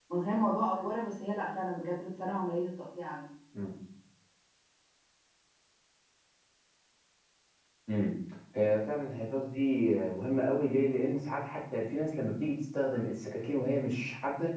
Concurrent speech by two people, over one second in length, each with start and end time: none

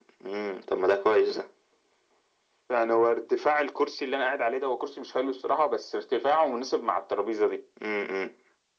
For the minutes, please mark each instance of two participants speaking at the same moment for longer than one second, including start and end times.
none

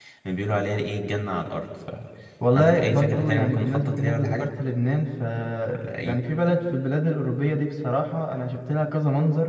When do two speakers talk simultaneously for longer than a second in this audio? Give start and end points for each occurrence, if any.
2.5-4.5

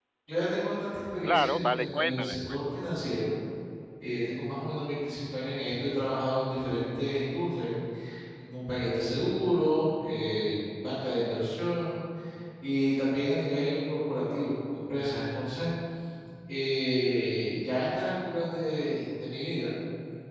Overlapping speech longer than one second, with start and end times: 1.2-2.6

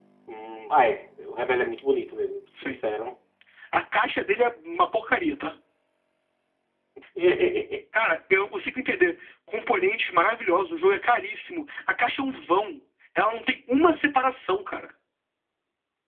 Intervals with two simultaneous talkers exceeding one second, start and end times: none

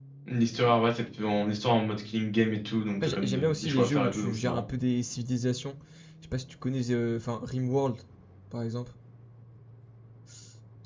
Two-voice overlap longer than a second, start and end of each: 3.0-4.6

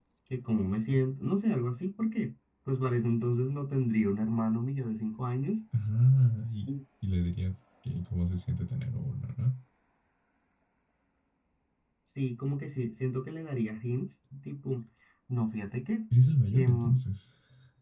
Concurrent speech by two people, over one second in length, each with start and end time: none

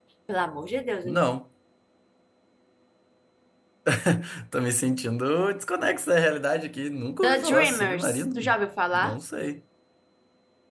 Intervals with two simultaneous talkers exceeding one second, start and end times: 7.2-8.5

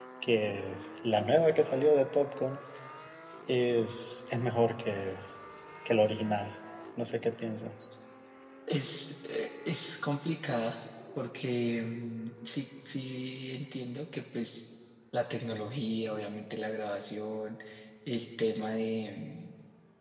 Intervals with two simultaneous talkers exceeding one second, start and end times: none

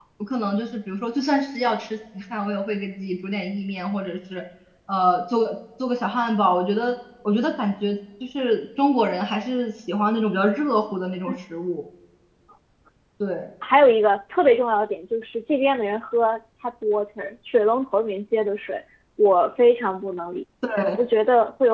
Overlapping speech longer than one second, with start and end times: none

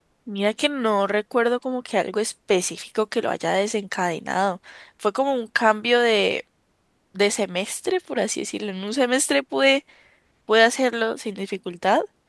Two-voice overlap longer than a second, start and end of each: none

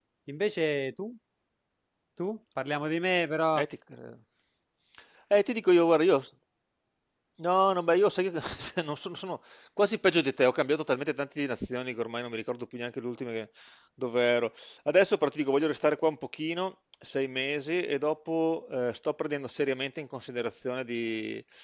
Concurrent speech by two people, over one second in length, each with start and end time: none

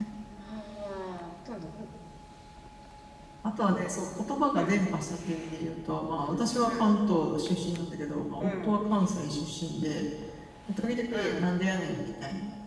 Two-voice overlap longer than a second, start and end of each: none

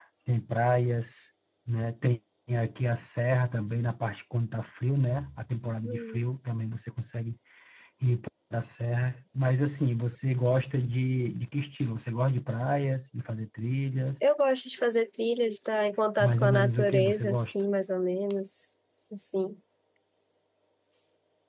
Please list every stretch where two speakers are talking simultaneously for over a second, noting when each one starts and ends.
16.2-17.5

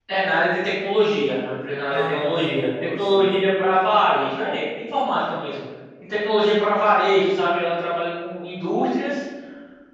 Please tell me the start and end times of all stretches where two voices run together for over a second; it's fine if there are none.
1.9-3.4

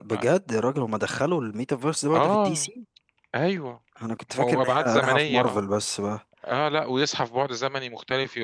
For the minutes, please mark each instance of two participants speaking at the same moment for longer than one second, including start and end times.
4.4-5.6

